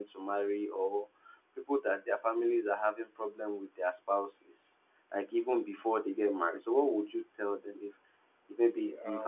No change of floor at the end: Yes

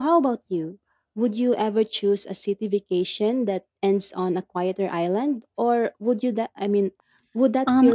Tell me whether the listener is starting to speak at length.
Yes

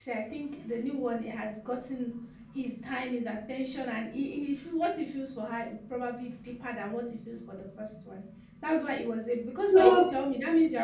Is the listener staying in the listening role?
Yes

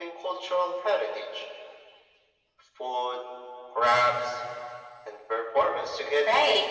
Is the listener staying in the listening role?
No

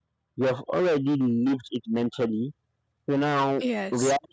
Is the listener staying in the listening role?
Yes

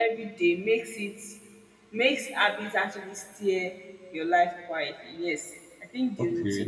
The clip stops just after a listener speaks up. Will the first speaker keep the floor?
No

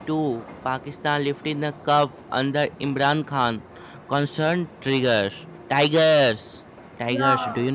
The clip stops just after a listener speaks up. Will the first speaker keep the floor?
No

